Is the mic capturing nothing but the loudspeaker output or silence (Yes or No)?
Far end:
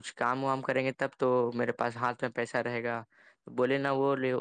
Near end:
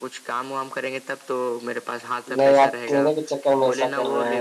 No